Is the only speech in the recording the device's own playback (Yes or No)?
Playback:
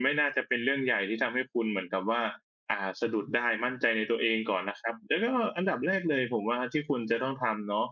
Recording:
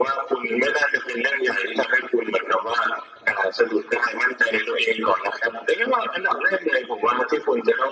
Yes